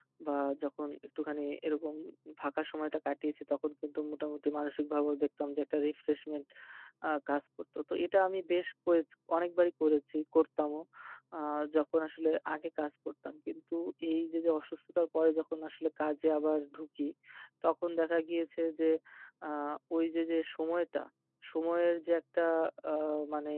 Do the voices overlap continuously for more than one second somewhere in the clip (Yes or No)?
No